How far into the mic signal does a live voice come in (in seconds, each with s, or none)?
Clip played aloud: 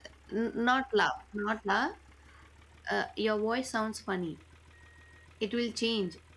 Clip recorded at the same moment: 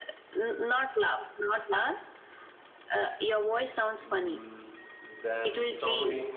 4.0 s